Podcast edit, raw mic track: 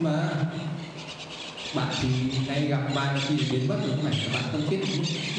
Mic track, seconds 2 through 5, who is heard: user only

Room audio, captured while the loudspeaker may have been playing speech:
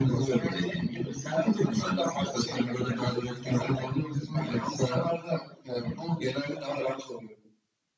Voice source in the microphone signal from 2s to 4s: echo only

